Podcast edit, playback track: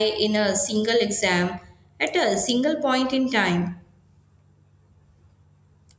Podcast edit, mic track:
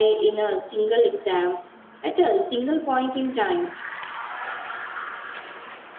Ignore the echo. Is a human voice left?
No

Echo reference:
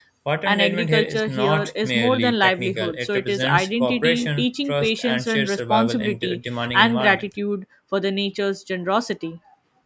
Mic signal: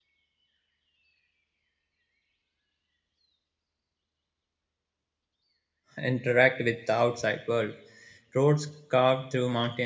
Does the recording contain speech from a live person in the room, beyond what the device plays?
Yes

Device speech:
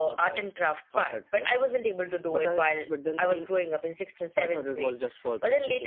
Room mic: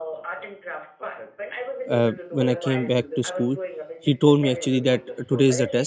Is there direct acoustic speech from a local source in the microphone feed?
Yes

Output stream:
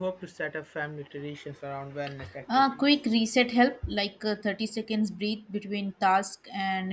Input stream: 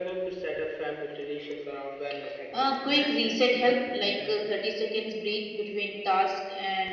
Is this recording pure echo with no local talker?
No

